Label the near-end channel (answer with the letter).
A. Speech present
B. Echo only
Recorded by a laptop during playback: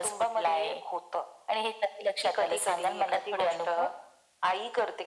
B